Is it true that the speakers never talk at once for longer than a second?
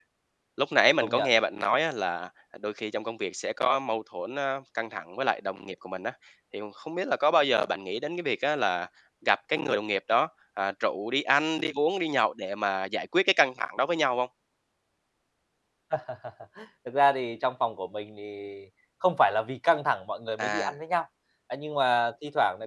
Yes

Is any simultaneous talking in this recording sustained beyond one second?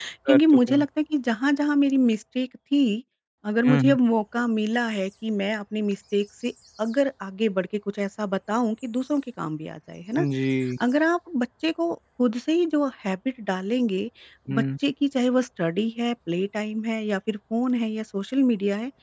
No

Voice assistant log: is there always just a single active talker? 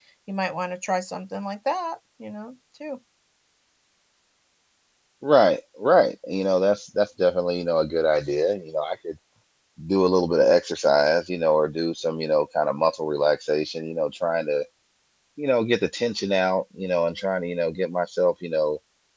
Yes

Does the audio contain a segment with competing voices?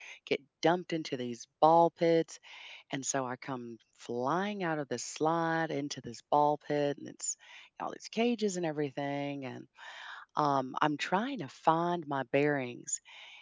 No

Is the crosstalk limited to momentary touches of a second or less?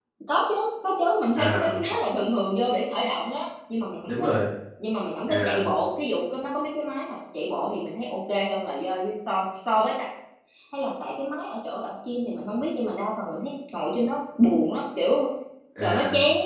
Yes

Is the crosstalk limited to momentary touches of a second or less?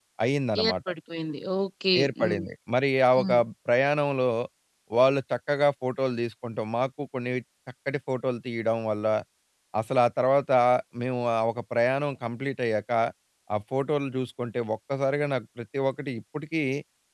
Yes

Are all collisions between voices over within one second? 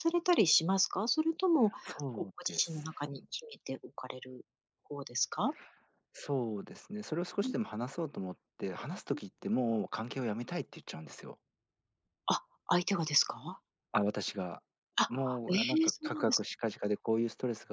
No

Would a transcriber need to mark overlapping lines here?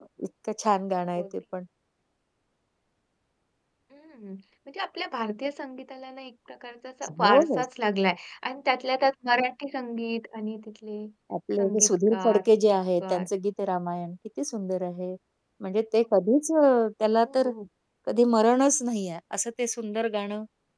Yes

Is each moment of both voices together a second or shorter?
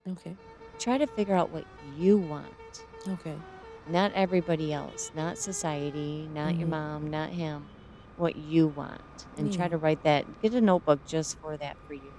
Yes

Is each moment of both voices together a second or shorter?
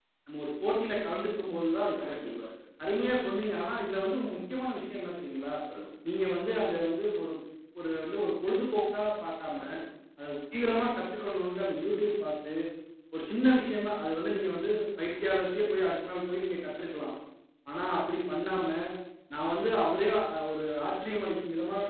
Yes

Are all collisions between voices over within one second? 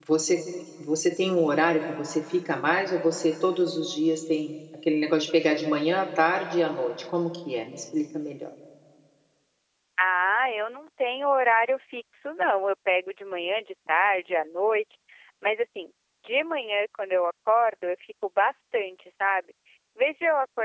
Yes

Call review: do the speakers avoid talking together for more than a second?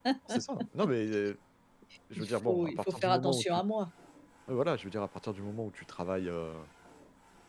No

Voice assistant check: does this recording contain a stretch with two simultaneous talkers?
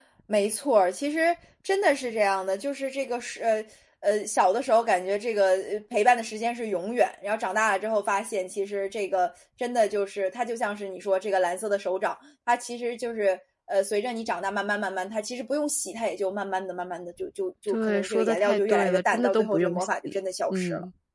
Yes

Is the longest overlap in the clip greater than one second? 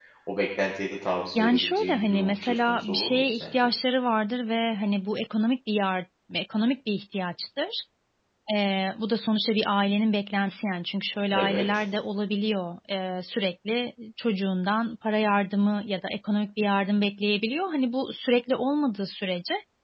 Yes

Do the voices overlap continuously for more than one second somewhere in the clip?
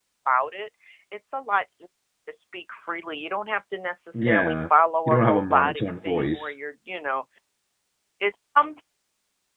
Yes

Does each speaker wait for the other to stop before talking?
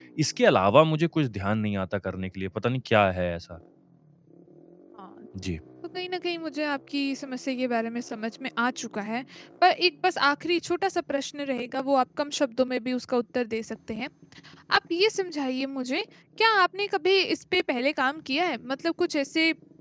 Yes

